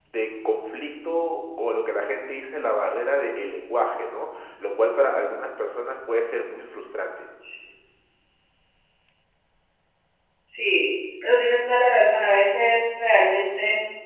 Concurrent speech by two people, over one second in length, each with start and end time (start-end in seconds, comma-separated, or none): none